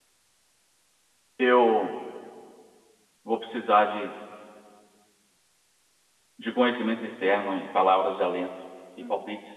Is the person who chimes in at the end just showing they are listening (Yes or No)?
Yes